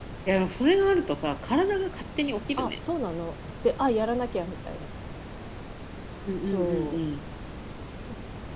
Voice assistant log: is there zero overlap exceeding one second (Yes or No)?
Yes